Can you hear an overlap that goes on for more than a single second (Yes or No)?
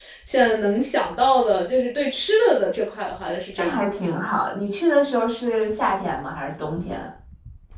No